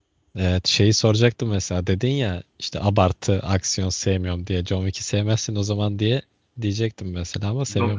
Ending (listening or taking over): taking over